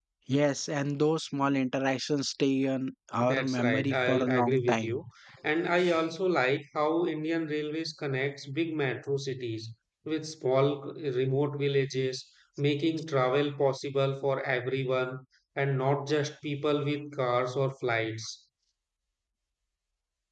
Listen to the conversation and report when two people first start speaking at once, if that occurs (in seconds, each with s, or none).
3.2 s